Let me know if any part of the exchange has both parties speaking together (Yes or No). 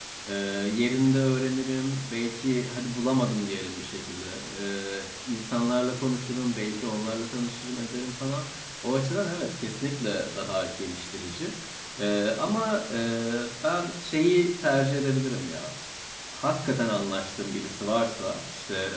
No